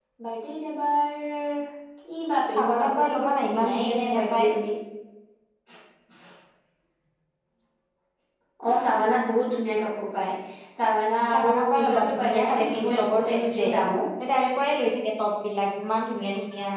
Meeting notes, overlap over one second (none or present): present